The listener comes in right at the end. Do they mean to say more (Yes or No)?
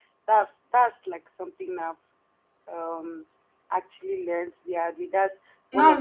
Yes